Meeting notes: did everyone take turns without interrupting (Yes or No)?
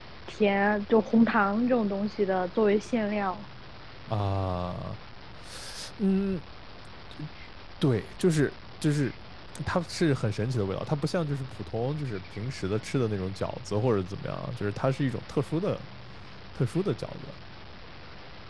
Yes